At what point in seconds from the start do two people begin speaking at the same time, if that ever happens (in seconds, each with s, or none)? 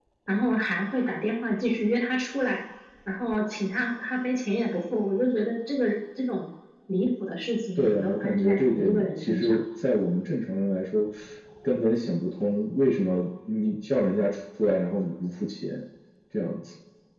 7.8 s